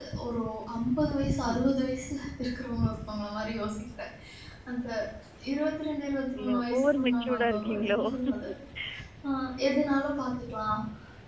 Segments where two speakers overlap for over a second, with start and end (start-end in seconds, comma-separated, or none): 6.4-8.0